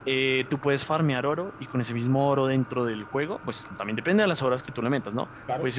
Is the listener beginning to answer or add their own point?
No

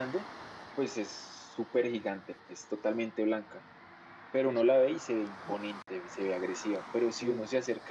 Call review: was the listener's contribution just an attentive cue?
Yes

